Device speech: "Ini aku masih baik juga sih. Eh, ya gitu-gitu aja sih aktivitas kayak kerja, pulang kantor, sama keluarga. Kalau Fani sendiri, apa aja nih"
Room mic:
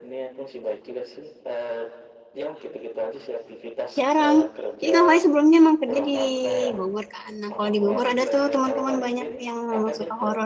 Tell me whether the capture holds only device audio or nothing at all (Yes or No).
No